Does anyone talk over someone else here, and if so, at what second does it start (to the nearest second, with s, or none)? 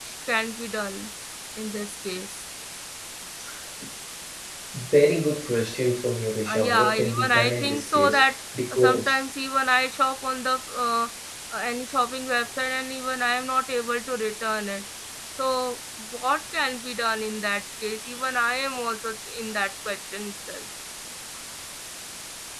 6 s